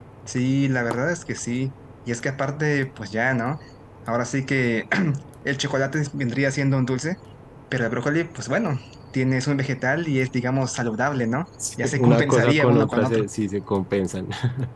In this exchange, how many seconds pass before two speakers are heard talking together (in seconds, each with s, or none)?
11.8 s